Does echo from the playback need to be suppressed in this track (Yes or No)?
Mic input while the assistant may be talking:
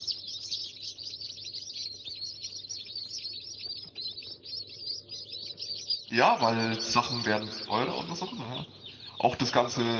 No